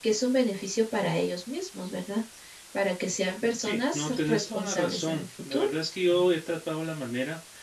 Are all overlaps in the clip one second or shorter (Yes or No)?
No